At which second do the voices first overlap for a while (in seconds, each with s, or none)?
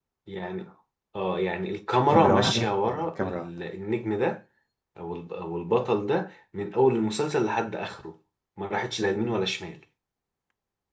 2.1 s